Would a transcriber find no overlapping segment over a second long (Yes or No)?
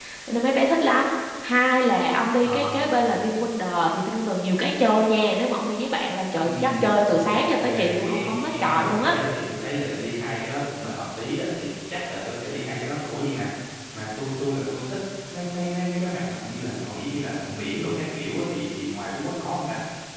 No